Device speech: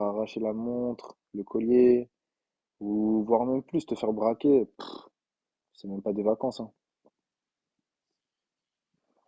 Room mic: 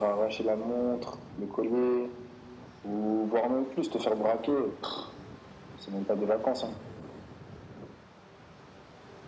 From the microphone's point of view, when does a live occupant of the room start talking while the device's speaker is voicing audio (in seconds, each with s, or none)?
none